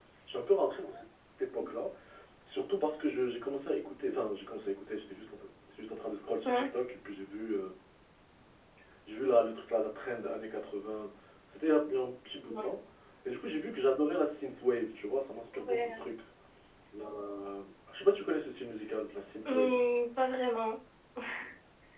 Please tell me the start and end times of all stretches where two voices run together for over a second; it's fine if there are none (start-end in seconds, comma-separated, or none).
none